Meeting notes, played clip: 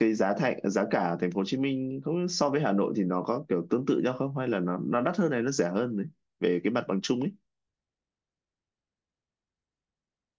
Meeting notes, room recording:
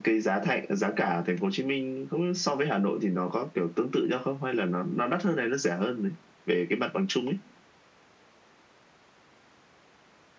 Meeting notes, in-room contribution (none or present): none